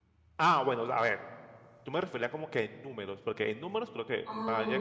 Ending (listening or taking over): listening